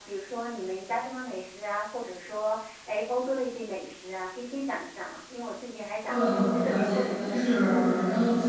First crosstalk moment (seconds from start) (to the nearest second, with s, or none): 6 s